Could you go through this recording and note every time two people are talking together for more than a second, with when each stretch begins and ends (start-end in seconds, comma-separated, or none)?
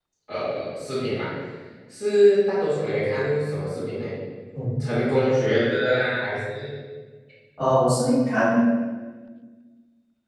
none